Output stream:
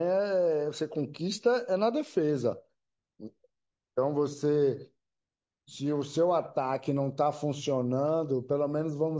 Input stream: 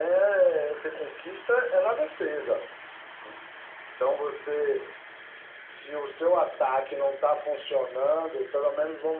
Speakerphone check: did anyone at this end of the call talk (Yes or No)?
No